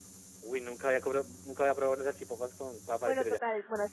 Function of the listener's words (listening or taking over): taking over